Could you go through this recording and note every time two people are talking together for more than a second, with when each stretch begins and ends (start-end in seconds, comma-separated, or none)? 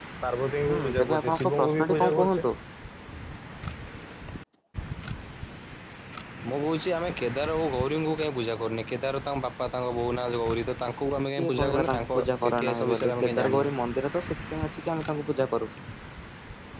0.7-2.5, 11.4-13.7